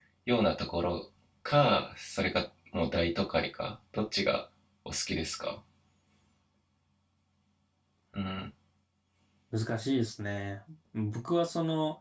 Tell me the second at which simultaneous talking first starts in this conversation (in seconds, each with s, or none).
none